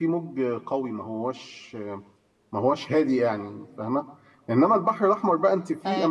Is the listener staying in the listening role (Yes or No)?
Yes